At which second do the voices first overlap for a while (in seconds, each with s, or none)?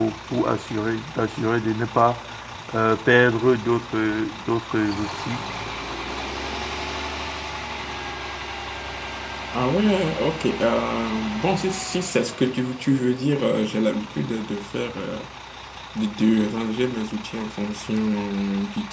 none